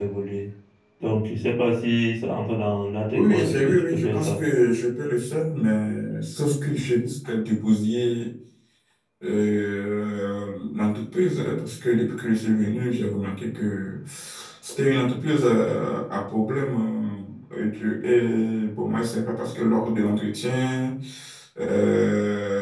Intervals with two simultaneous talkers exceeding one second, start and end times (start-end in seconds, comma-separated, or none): 3.1-4.4